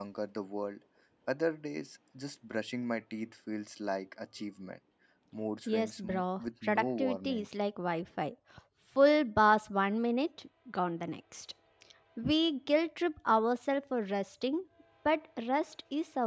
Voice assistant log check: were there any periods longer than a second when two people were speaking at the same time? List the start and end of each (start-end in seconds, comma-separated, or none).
5.7-7.5